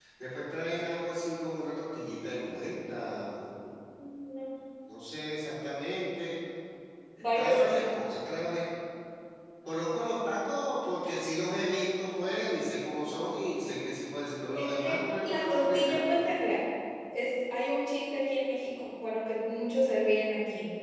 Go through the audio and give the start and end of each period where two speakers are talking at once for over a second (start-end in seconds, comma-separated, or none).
14.5-16.0